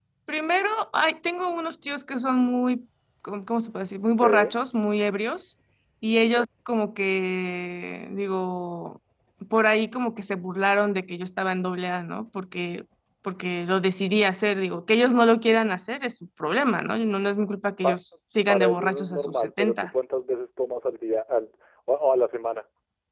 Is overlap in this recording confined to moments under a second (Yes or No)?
No